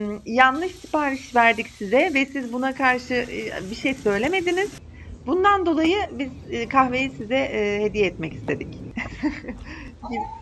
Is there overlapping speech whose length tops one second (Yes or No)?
No